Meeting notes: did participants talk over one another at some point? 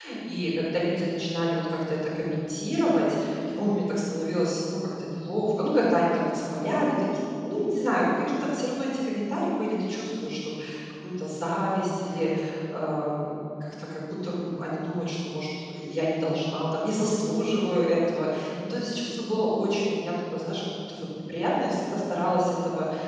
No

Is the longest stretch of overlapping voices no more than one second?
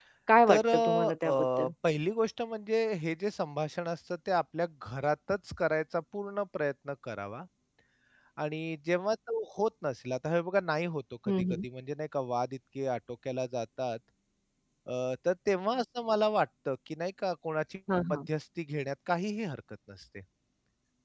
No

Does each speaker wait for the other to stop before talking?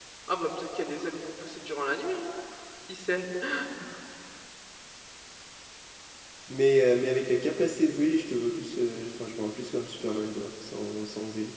Yes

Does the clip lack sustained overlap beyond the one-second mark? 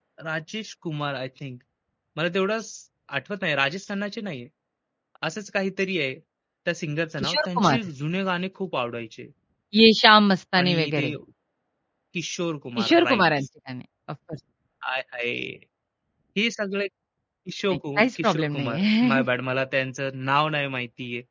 No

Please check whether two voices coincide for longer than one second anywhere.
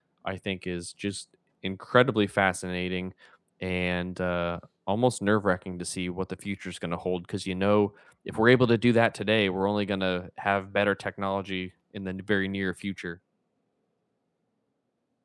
No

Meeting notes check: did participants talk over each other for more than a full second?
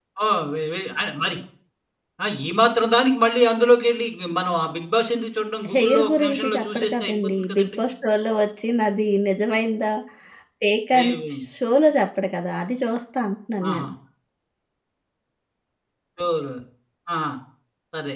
Yes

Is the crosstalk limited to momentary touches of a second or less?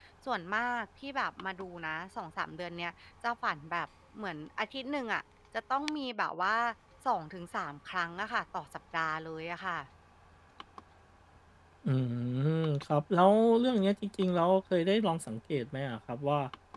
Yes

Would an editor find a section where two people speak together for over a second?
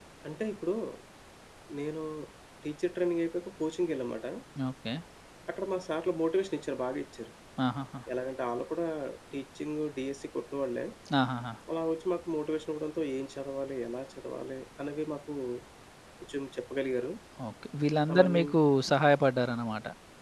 No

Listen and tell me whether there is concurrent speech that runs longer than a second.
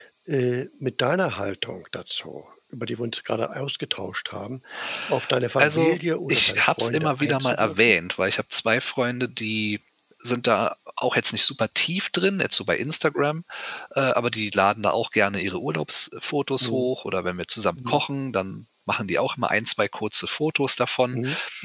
Yes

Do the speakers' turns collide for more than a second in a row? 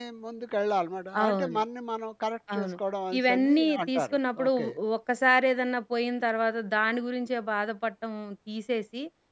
Yes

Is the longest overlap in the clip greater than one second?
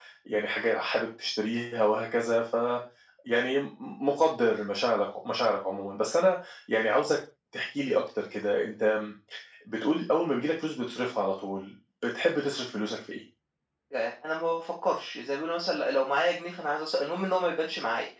No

